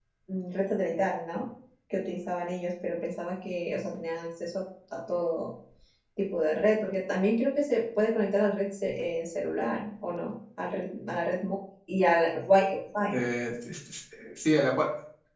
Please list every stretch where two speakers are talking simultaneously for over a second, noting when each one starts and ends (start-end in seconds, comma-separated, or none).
none